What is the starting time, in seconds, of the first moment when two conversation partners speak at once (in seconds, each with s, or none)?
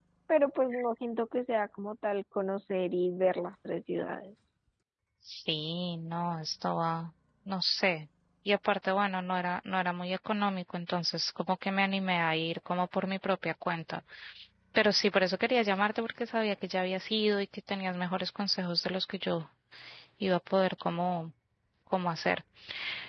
none